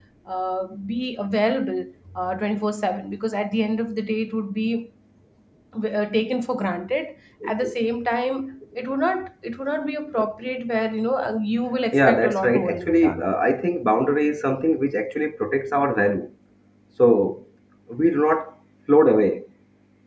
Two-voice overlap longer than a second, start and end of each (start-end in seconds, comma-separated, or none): 11.9-13.2